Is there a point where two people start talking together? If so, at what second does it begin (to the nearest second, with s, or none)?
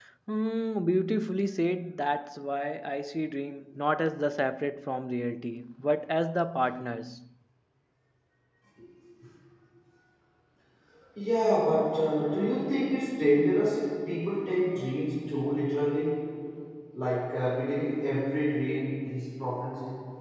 none